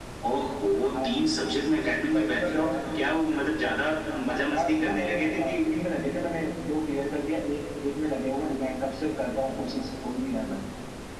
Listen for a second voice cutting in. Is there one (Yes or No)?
Yes